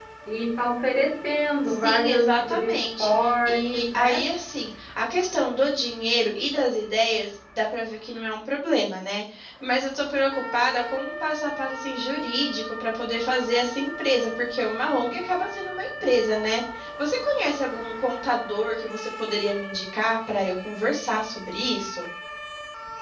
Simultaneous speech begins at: 1.8 s

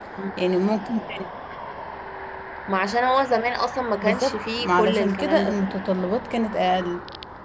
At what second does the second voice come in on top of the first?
4.0 s

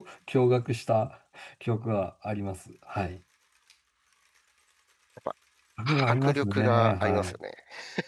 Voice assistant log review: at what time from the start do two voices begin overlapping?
6.1 s

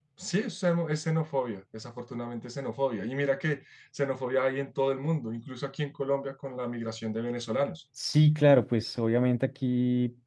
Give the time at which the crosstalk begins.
none

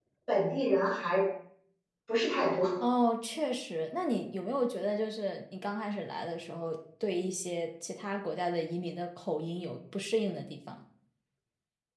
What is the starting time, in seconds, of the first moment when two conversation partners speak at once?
none

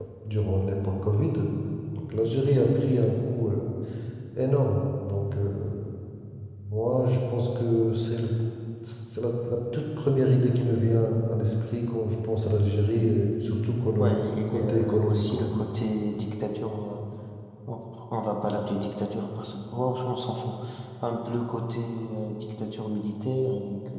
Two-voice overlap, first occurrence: 14.0 s

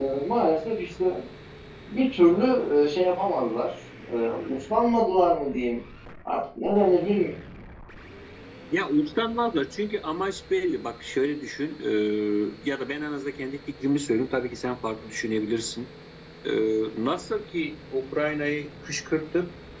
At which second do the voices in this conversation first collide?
none

